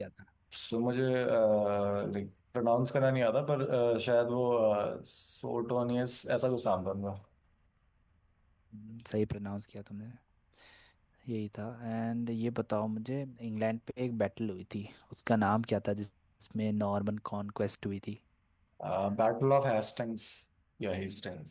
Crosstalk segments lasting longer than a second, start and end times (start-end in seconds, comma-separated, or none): none